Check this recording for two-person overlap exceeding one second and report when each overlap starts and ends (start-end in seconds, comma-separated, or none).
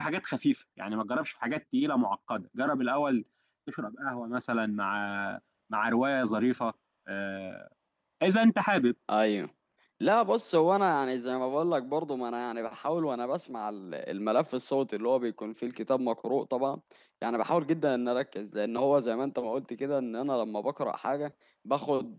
none